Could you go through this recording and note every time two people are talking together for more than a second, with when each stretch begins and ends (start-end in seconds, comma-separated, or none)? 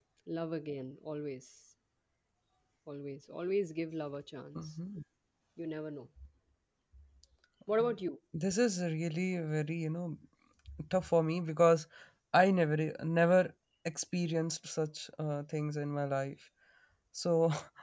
none